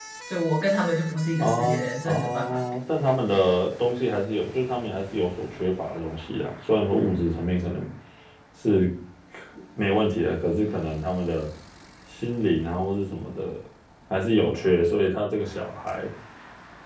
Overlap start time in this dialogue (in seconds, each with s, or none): 1.4 s